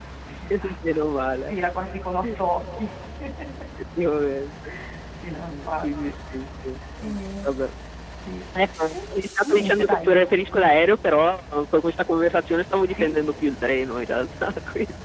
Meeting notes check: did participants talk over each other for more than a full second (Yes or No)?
Yes